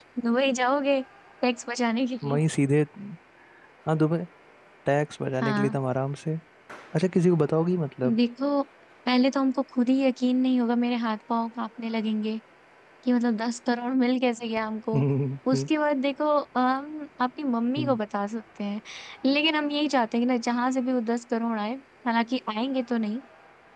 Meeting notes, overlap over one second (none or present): none